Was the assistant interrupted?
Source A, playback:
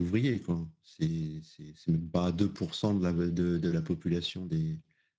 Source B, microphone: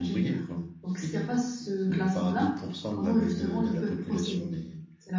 Yes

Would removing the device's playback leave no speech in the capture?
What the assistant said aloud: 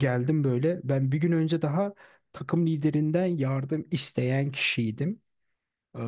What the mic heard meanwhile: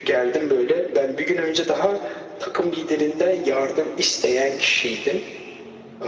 Yes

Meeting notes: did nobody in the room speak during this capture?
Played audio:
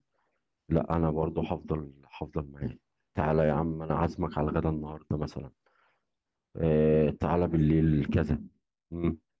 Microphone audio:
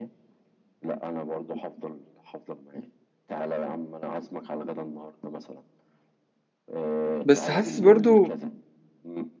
No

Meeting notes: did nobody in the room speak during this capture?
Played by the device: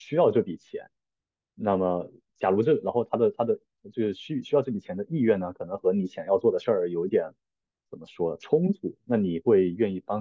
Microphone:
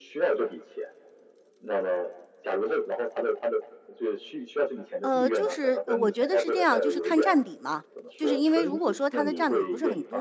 No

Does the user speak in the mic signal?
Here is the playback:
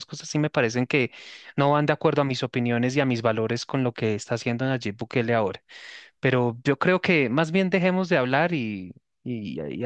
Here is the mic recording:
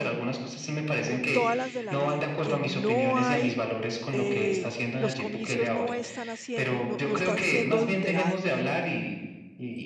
Yes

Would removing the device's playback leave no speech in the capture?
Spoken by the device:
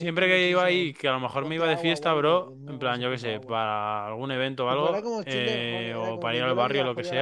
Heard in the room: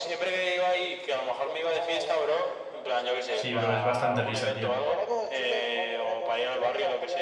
No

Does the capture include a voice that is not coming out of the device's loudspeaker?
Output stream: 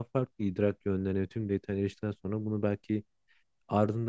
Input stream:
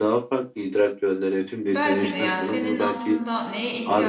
Yes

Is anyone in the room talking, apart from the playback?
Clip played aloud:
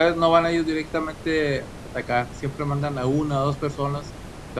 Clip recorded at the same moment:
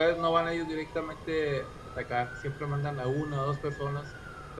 No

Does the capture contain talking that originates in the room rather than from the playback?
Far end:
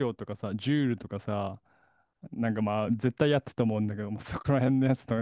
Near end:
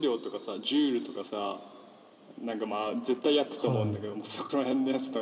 Yes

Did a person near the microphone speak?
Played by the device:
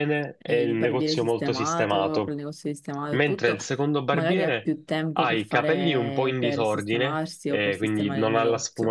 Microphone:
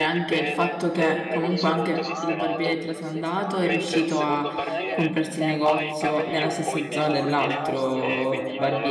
Yes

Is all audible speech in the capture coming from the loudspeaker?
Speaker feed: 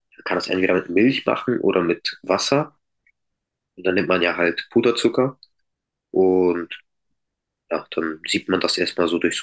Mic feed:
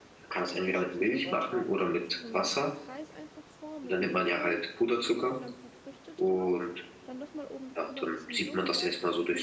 No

